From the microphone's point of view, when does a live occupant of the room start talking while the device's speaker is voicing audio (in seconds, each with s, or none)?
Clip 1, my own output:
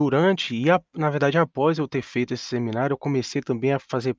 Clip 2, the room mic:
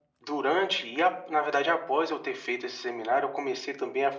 none